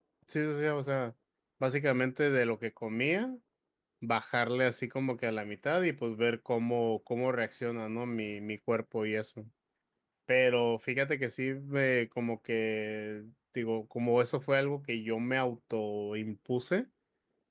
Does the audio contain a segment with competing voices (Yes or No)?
No